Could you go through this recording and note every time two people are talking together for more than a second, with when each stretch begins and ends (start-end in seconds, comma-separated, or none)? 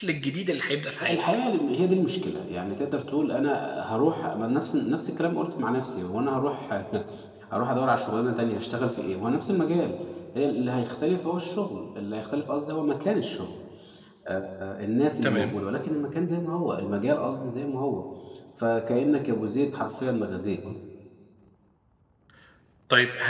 none